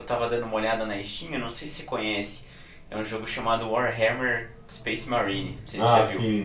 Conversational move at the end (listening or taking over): taking over